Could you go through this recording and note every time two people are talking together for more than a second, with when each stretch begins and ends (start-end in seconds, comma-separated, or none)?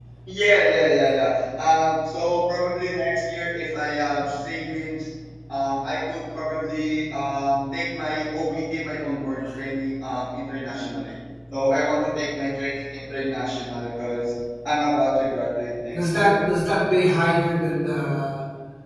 none